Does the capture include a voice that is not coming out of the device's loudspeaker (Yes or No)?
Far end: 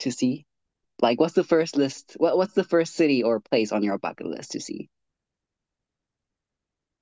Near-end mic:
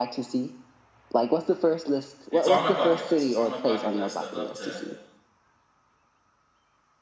Yes